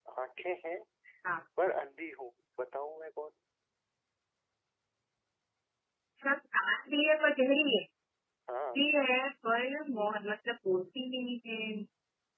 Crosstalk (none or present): none